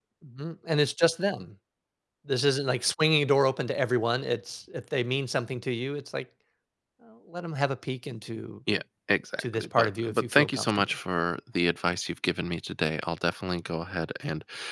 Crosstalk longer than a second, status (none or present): present